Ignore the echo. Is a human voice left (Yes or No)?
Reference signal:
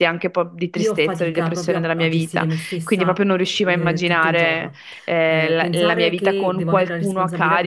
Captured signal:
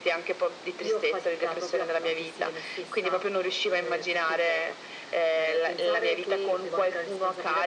No